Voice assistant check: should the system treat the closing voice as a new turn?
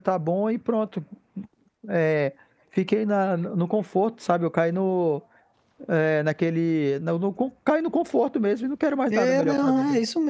Yes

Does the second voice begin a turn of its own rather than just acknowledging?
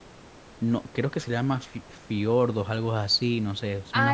Yes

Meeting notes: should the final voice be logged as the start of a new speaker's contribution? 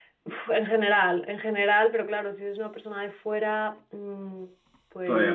No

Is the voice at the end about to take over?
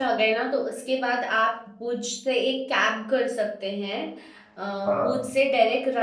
No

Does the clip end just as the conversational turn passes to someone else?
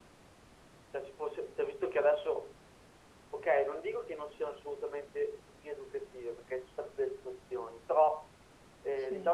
No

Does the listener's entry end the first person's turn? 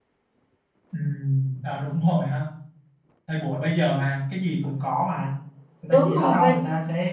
No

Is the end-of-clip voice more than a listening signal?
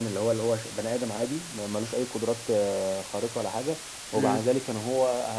No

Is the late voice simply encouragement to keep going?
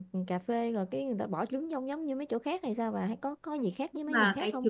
No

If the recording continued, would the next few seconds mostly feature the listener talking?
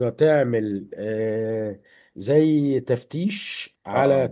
No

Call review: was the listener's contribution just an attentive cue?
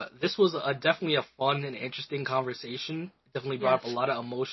Yes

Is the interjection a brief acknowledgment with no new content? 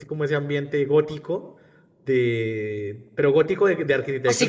No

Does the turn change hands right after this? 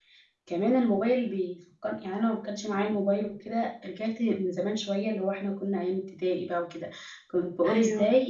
No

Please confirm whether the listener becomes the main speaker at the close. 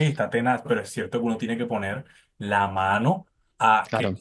No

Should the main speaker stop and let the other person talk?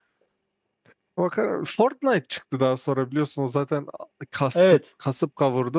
No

